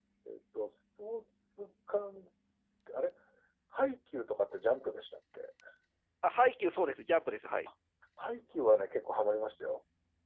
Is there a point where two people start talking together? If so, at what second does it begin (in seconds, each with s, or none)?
none